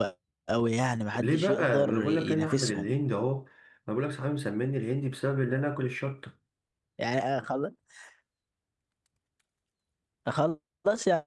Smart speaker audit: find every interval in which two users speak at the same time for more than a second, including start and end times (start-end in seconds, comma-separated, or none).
1.2-2.9